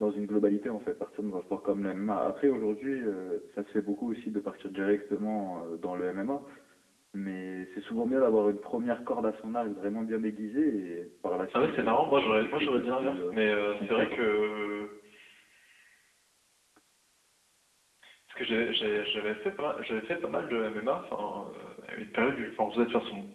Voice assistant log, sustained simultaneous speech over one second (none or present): present